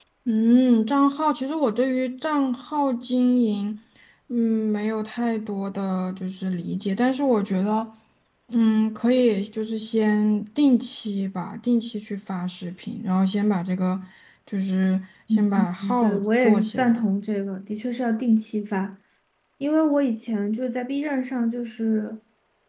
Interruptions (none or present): present